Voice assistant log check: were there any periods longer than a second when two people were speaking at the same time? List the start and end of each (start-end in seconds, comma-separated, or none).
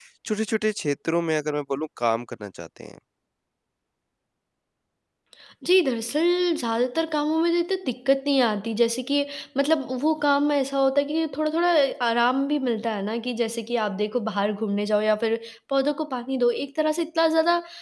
none